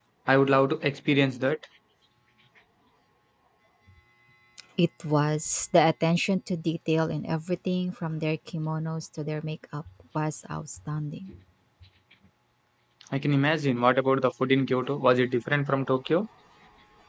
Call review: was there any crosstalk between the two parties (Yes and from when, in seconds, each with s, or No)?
No